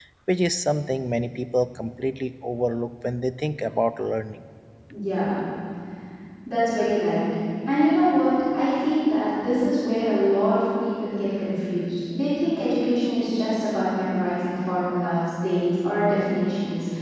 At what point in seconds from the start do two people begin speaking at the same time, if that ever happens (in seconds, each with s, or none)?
none